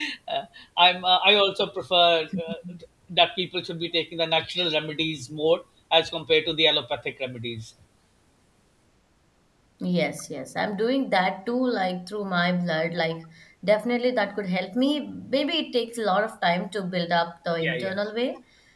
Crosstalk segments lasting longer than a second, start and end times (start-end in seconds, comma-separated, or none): none